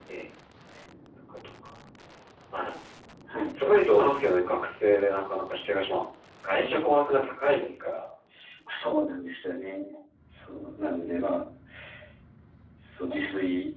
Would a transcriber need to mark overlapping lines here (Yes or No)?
No